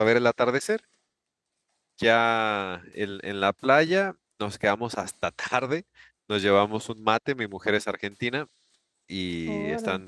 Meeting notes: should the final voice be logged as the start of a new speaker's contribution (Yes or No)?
No